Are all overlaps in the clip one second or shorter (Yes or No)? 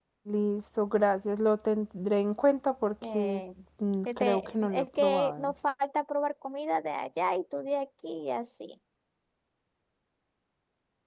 No